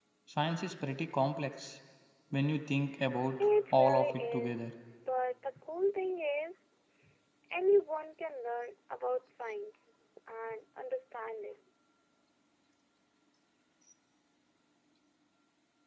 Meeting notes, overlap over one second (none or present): present